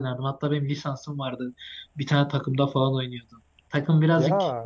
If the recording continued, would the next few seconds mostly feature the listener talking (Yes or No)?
No